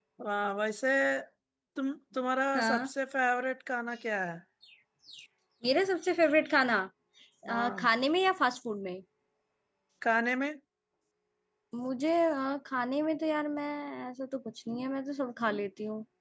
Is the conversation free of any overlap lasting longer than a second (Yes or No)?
Yes